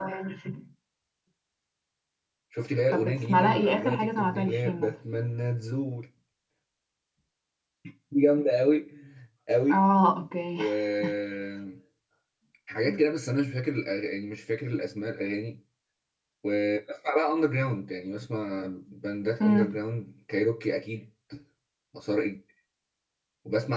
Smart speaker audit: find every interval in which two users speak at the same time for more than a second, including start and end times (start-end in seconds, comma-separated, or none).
2.9-4.9